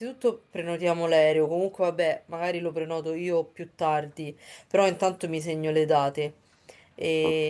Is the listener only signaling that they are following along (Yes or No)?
Yes